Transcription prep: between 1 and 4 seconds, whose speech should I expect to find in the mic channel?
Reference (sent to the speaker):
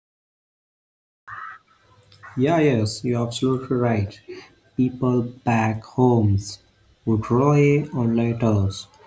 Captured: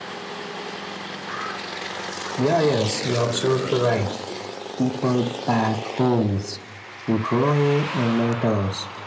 echo only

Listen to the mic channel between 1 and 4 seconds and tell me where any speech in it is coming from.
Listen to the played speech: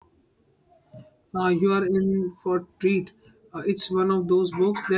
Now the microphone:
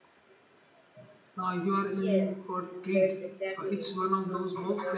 both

